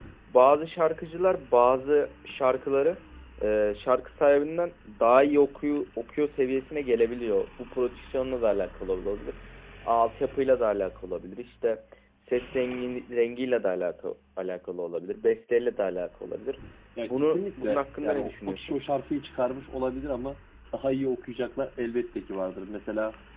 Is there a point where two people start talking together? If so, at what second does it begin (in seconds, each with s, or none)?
17.0 s